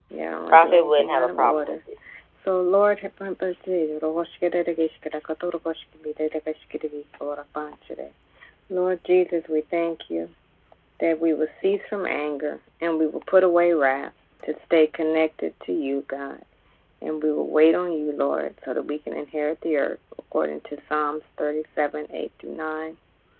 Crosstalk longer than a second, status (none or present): present